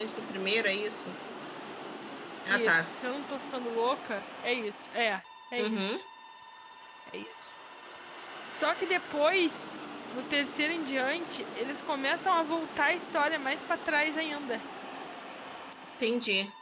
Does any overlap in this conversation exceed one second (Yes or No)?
No